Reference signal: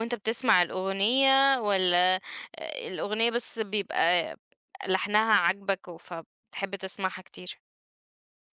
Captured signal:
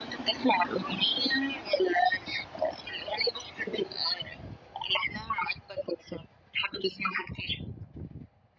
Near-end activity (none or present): none